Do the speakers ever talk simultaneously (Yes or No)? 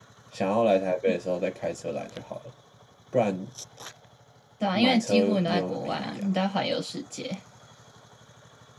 Yes